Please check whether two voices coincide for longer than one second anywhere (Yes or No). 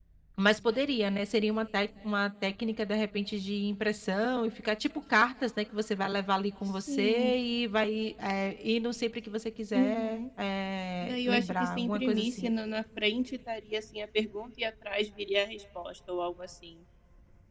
Yes